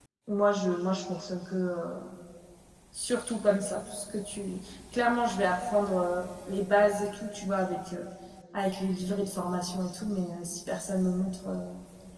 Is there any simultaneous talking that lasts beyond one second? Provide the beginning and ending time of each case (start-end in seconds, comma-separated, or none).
none